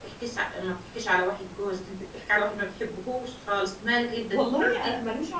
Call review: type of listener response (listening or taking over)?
taking over